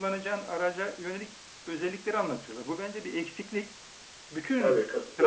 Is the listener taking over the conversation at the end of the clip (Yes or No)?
No